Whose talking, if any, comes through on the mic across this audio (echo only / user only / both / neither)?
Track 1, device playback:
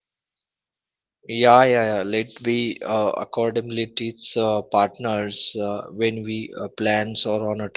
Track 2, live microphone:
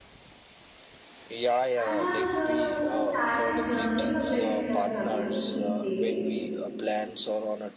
both